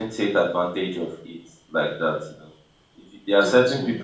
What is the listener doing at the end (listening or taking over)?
listening